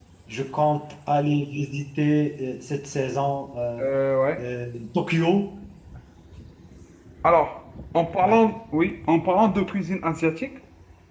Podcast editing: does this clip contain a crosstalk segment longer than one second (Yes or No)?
No